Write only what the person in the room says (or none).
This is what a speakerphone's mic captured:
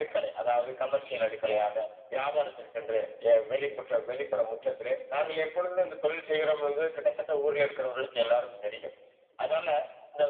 none